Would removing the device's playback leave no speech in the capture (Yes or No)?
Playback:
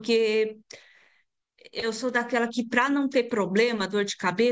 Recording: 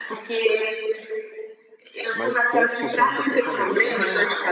No